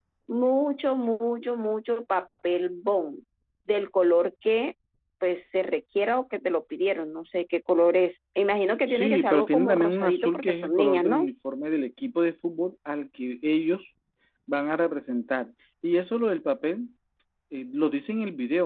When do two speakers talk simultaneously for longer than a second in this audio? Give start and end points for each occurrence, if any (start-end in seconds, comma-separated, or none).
8.9-11.3